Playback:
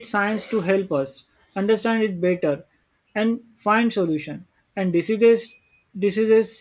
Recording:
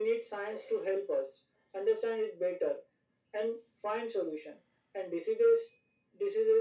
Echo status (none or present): present